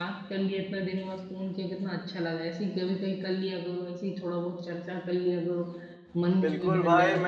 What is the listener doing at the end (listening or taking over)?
taking over